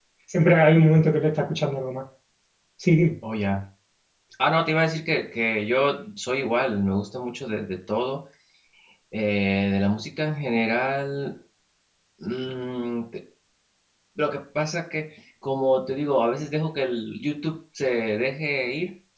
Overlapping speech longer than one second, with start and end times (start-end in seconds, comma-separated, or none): none